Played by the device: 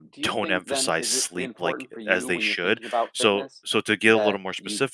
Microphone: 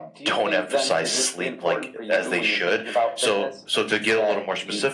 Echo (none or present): present